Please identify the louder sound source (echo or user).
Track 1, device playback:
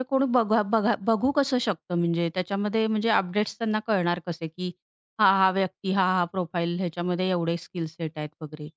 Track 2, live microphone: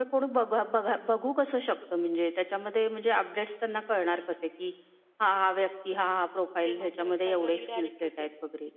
echo